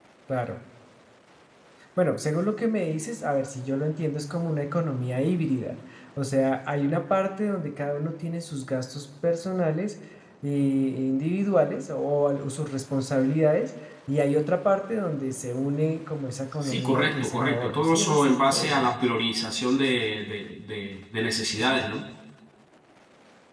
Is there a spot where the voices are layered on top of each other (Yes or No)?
Yes